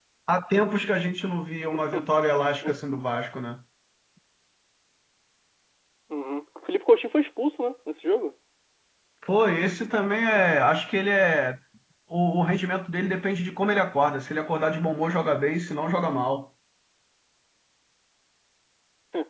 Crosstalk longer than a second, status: none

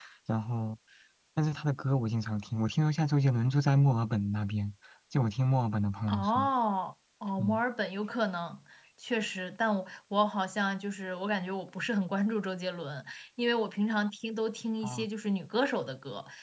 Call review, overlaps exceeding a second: none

